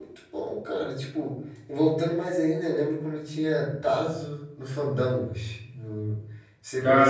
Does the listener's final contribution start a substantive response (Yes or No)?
Yes